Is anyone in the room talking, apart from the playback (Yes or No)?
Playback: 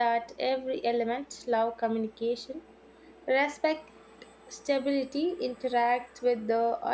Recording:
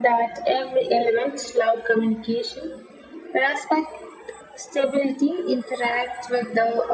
No